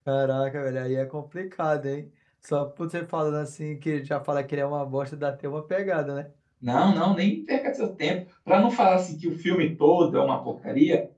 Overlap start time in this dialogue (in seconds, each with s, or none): none